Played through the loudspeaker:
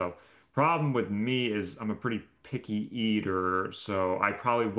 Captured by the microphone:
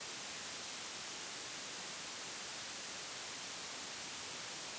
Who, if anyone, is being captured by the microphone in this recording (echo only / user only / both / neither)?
neither